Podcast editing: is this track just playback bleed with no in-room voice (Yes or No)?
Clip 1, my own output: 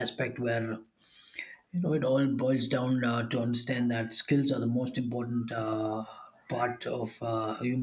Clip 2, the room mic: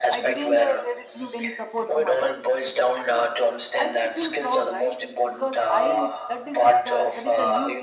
No